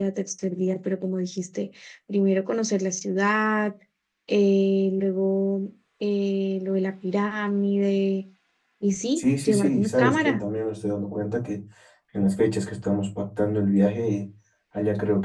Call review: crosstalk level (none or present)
present